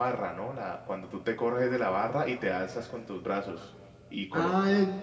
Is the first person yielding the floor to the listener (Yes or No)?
Yes